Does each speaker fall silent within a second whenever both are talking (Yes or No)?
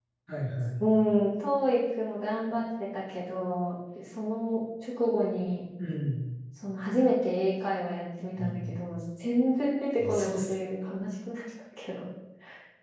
Yes